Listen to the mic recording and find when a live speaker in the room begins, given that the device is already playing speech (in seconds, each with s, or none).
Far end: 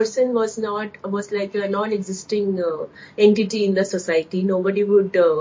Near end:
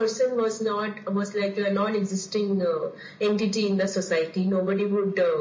none